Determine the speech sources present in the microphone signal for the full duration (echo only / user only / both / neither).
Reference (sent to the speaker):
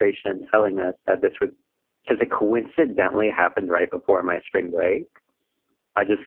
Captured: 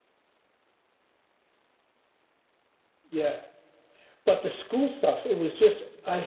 user only